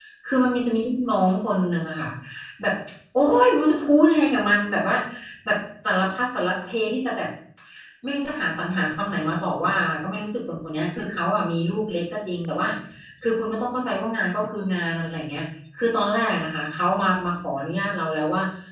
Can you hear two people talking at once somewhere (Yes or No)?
No